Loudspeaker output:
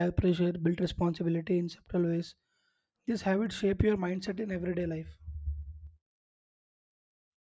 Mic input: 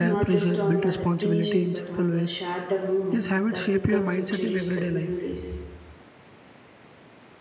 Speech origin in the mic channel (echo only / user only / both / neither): both